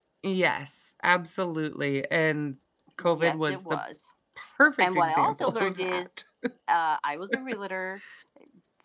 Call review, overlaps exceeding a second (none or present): present